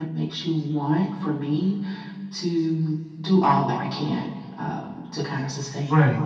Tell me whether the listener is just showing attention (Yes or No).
Yes